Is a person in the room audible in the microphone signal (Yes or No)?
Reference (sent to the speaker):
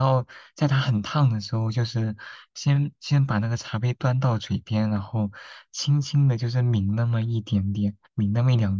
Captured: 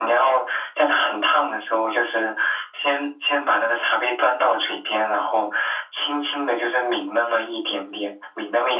No